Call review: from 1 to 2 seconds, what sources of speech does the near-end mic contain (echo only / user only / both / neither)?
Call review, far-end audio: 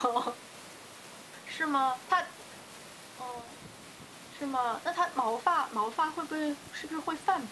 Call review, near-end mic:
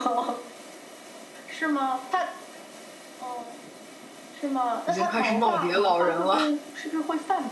echo only